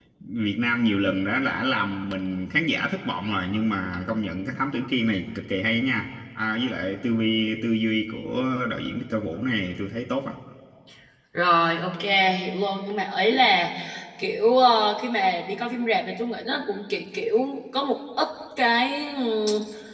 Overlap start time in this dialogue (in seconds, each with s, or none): none